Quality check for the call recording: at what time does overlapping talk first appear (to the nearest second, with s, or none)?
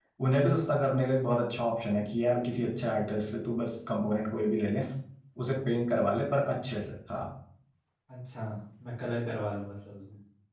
none